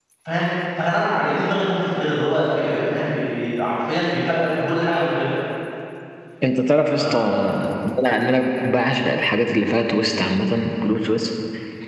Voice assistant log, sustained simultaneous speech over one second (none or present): none